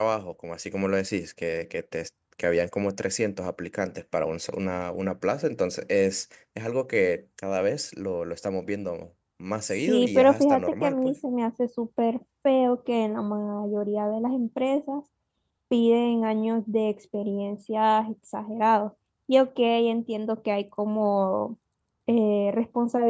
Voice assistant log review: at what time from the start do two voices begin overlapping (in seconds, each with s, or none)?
9.7 s